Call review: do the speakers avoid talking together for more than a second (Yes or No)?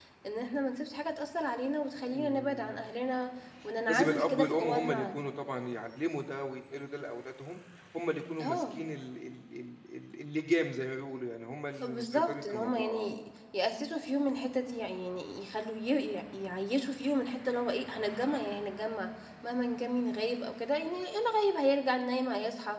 No